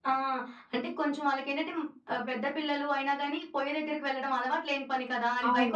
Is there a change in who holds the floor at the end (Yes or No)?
Yes